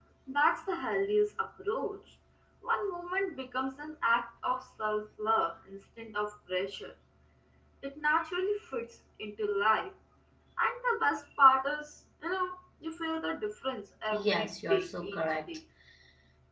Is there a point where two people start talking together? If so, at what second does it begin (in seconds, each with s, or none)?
14.1 s